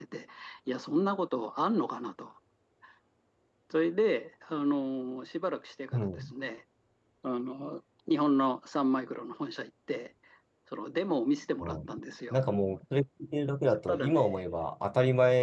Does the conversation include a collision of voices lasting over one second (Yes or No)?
No